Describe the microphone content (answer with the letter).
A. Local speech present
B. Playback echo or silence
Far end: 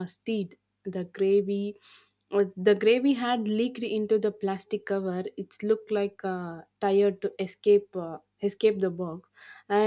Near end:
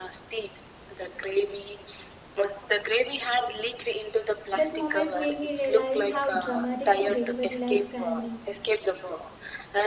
A